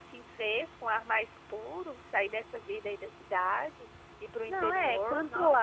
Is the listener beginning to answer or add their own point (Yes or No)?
Yes